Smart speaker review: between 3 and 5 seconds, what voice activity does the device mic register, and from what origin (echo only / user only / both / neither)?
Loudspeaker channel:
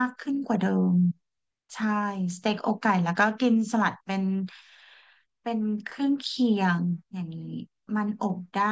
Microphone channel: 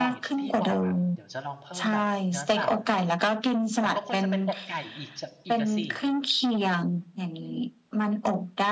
both